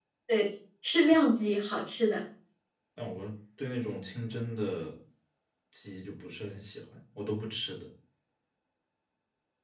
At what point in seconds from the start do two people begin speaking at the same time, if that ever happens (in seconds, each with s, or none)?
none